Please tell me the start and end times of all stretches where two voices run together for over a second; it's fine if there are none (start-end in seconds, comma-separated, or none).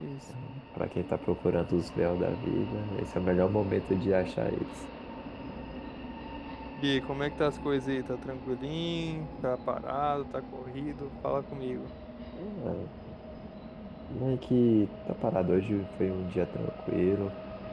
none